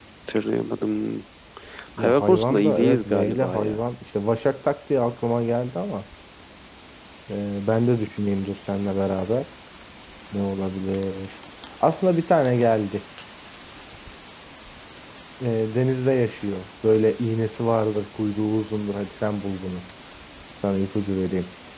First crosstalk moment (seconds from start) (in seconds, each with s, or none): 2.0 s